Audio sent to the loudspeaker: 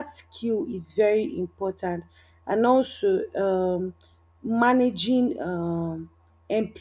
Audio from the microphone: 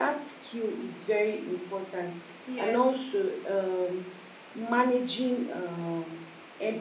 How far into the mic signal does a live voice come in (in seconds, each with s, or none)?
2.4 s